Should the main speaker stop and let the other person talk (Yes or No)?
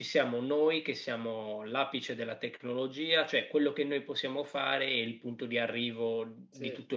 No